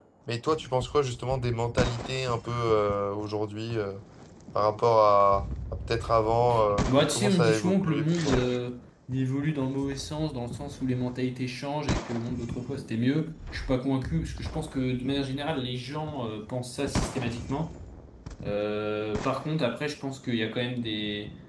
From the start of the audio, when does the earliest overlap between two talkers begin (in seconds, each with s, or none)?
6.9 s